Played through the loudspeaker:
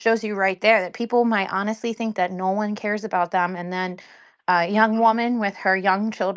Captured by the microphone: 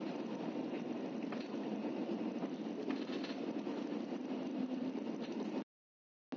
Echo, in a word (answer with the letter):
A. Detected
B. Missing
B